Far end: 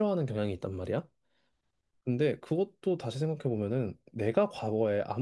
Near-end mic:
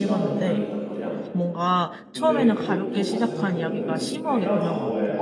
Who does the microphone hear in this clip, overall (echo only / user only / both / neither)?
both